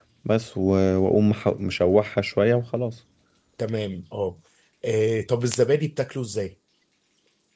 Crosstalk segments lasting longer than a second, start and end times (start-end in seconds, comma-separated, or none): none